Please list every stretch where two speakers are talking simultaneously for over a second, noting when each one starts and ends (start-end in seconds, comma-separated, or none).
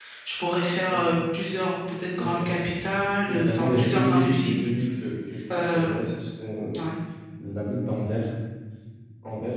3.3-4.6